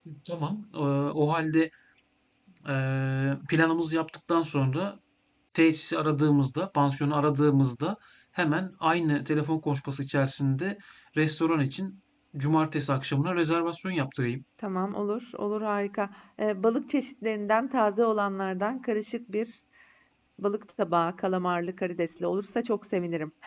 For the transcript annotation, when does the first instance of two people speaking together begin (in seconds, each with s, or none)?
none